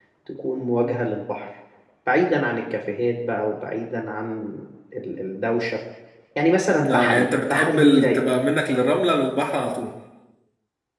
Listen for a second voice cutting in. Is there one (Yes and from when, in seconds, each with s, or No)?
Yes, from 6.9 s